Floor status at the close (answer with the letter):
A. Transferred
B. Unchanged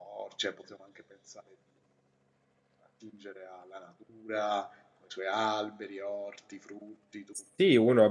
A